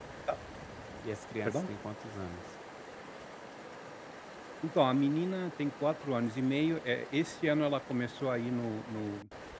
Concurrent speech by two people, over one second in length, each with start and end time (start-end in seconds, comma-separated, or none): none